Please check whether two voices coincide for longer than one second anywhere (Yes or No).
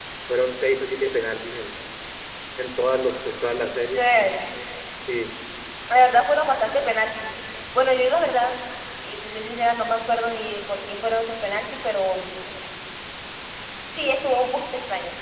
No